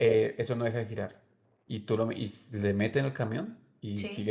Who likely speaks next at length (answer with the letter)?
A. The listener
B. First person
B